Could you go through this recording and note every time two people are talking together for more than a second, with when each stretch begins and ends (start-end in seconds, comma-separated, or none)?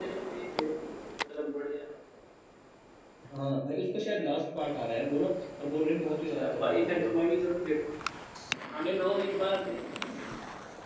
6.1-7.3